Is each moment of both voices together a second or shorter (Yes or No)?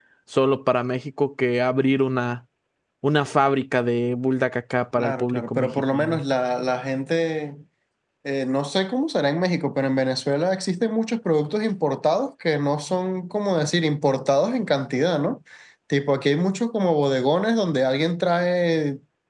No